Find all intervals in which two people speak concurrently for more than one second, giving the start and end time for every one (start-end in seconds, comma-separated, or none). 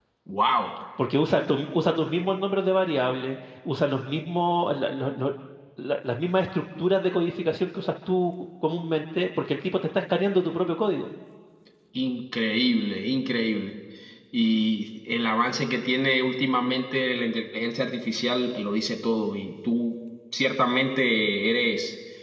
none